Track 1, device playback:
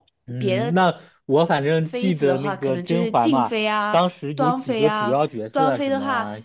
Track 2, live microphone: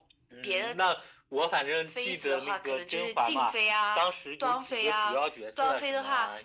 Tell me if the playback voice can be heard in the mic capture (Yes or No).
Yes